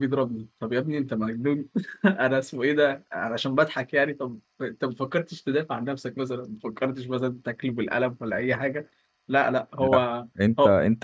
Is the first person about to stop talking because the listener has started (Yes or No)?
Yes